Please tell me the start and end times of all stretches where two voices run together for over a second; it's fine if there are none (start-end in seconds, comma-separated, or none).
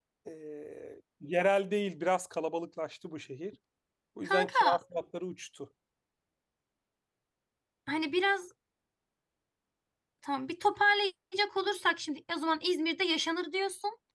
none